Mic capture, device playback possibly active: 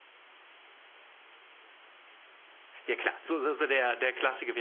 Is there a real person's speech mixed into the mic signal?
Yes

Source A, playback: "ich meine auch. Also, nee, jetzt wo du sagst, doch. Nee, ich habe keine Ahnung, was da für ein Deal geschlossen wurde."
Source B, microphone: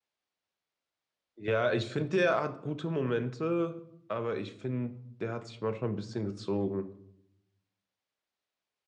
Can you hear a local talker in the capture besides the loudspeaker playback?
Yes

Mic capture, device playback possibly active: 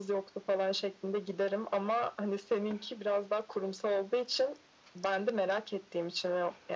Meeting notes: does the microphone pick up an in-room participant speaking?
No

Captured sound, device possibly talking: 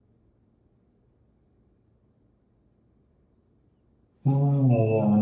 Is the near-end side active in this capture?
Yes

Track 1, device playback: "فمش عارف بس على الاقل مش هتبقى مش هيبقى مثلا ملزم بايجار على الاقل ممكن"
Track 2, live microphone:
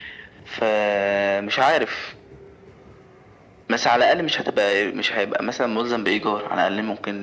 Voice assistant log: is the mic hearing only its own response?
Yes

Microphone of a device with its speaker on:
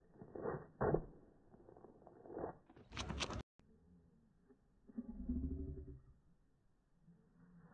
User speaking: No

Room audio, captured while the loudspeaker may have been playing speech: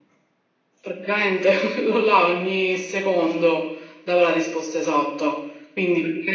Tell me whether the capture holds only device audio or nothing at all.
Yes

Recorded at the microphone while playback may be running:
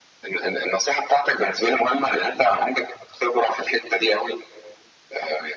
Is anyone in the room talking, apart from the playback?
No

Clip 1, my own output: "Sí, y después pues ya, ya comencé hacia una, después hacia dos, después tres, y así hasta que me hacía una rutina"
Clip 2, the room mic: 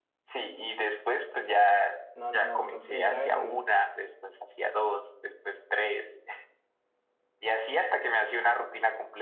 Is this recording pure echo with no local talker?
No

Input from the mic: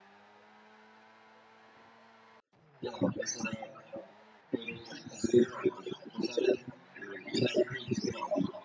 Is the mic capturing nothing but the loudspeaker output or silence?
Yes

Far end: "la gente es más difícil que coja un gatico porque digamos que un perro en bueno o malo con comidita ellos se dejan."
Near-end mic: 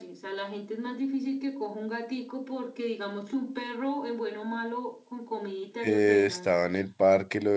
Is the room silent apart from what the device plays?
No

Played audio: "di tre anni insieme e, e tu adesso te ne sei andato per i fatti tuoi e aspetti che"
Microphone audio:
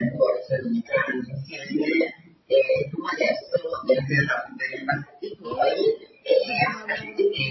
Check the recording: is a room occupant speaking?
Yes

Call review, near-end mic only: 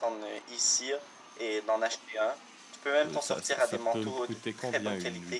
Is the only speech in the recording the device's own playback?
No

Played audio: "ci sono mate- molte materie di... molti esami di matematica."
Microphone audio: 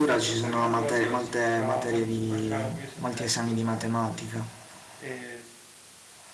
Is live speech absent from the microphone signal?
No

